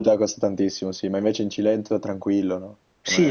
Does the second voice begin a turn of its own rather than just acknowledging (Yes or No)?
Yes